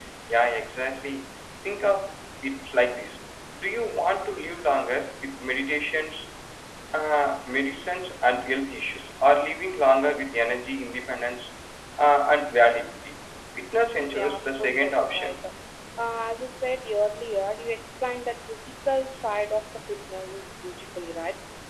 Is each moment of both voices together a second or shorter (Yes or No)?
No